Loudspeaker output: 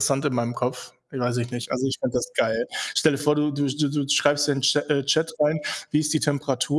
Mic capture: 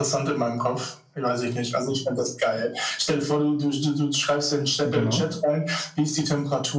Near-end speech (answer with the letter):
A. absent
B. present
B